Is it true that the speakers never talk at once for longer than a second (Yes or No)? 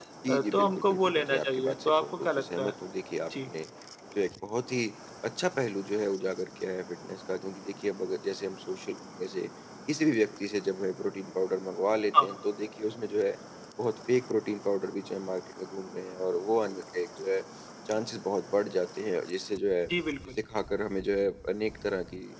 No